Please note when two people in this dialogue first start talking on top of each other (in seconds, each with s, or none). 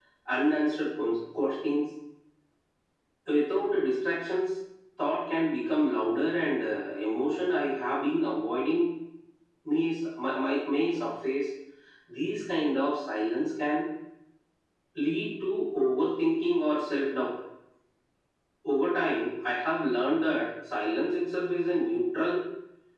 none